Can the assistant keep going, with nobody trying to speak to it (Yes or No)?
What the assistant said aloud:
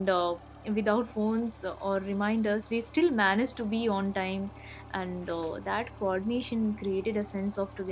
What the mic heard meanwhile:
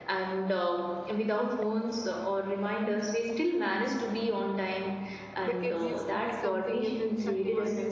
No